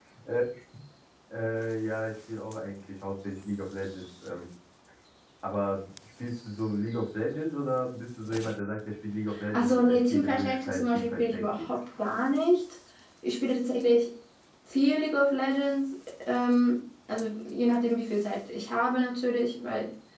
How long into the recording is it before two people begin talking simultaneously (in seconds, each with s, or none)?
9.3 s